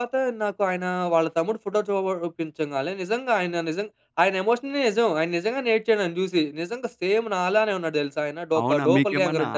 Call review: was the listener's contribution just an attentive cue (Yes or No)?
No